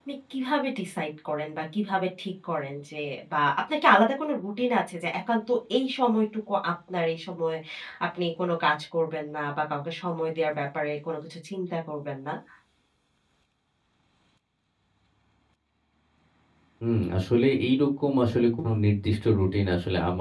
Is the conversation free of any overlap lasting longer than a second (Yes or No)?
Yes